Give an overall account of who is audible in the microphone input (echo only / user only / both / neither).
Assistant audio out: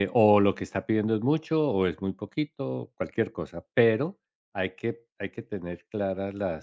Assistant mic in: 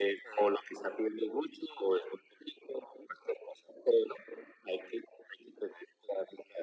echo only